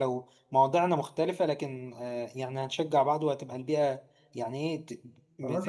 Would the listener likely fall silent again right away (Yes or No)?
No